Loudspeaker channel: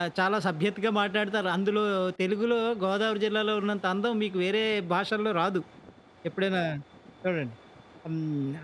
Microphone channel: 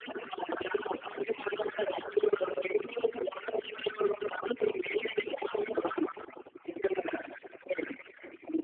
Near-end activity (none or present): none